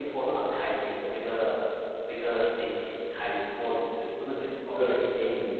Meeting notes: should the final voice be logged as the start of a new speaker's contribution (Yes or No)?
No